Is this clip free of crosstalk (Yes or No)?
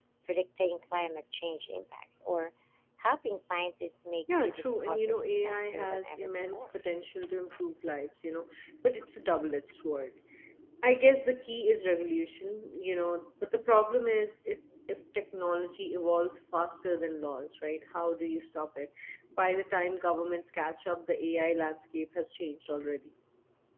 No